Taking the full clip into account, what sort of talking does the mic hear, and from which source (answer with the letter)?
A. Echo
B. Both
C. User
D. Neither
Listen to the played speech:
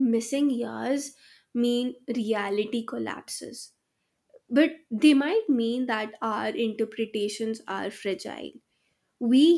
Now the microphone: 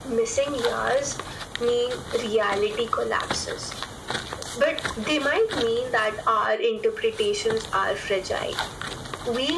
A